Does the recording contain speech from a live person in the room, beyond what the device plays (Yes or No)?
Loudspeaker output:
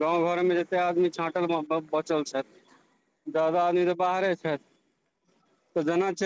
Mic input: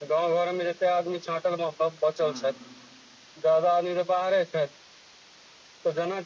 Yes